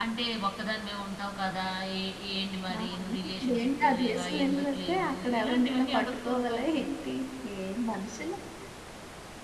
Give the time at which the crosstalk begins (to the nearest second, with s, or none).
3 s